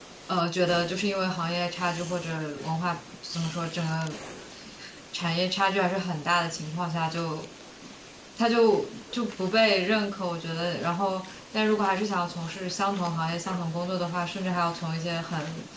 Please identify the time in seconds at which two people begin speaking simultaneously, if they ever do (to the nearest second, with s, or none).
none